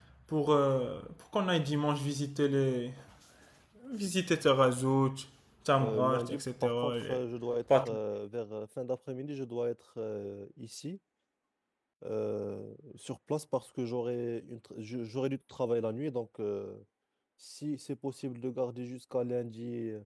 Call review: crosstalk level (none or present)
present